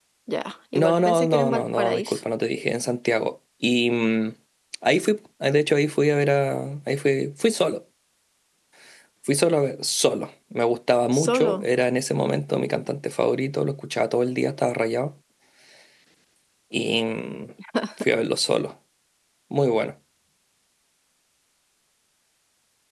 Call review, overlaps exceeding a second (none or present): present